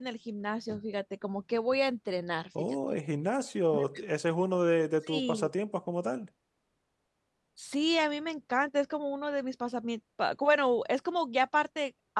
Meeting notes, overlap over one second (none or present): none